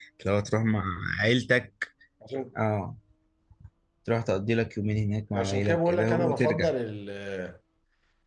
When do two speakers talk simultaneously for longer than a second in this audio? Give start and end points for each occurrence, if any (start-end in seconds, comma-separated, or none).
5.3-6.7